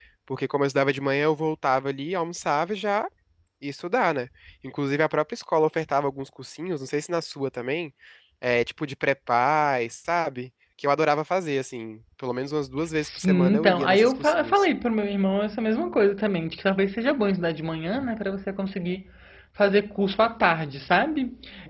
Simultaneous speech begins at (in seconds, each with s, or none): 13.0 s